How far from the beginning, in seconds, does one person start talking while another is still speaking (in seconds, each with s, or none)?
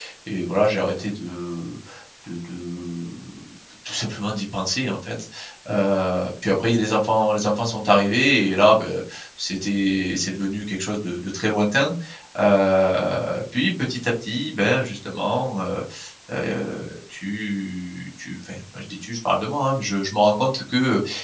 none